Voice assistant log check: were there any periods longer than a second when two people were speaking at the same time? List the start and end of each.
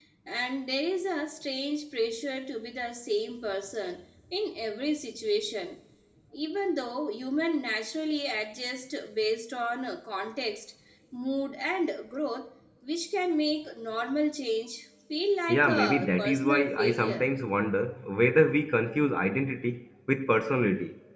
15.5-17.3

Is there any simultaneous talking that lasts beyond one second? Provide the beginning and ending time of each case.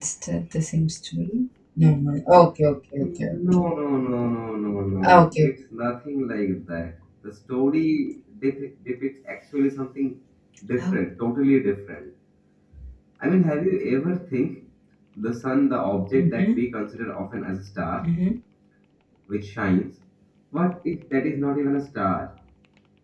none

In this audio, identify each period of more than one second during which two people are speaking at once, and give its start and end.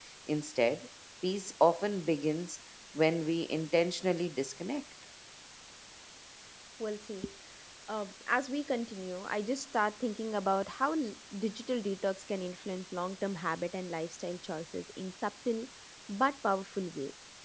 none

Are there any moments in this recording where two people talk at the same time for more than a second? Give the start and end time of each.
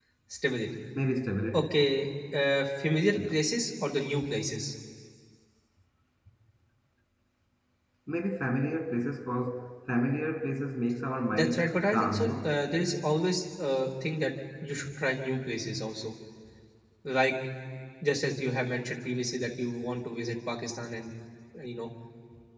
11.3-12.5

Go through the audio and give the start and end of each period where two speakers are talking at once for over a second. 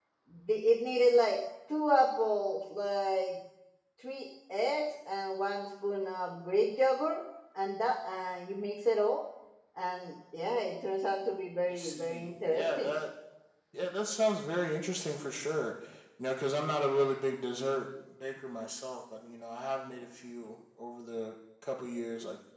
11.7-12.9

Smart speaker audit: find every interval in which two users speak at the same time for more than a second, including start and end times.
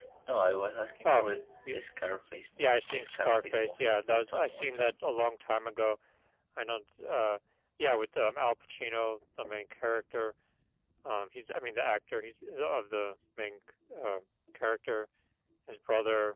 2.6-4.9

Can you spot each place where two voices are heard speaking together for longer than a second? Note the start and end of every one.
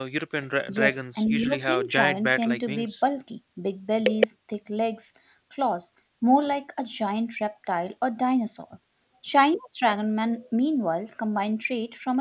0.7-2.9

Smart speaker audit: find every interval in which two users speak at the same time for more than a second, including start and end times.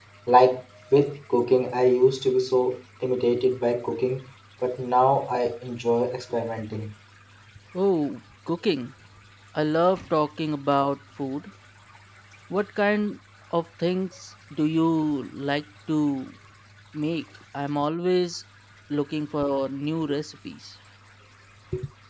none

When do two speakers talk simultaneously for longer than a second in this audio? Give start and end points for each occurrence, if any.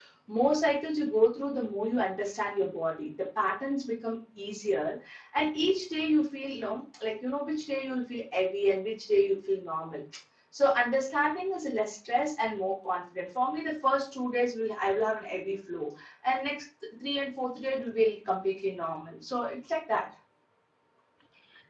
none

